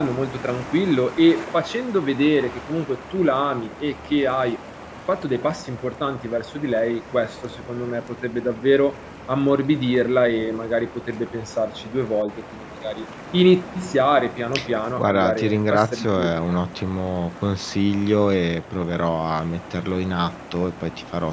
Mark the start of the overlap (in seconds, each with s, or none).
15.0 s